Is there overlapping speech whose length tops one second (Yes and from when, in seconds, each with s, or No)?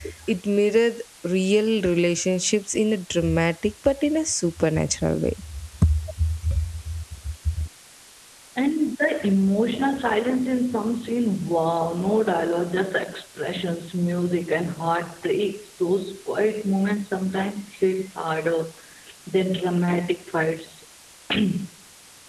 No